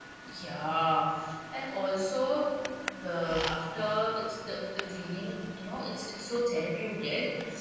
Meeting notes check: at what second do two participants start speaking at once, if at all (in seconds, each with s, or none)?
none